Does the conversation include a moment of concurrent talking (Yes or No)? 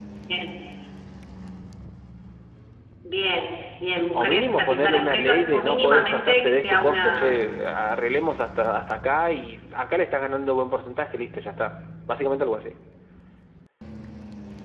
Yes